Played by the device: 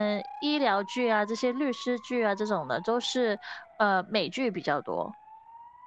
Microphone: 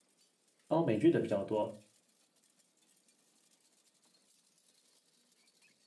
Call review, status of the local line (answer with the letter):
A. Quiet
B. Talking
B